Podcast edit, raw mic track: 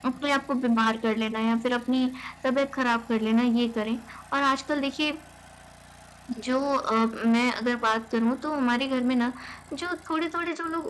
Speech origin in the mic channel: echo only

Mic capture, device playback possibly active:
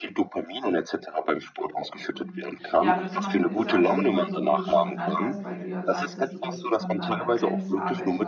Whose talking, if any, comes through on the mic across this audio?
both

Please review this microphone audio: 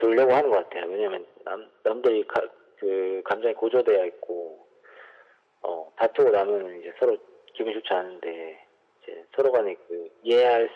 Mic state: echo only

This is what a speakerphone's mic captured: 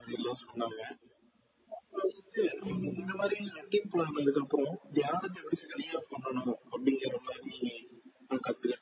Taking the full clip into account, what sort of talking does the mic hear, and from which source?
both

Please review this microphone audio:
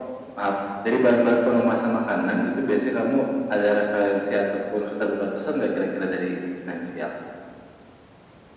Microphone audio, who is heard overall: echo only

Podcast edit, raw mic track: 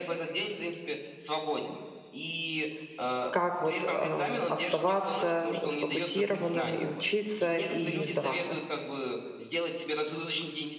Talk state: both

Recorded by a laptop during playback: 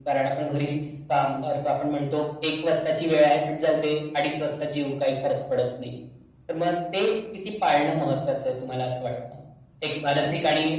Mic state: echo only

